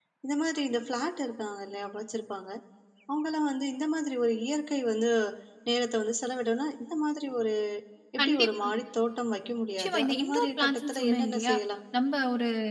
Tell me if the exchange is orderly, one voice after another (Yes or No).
No